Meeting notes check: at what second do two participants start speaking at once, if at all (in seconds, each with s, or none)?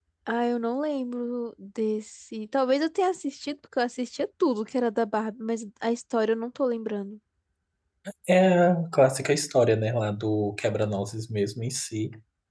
none